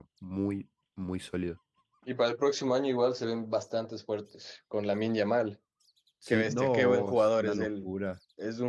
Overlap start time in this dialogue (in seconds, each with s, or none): 6.3 s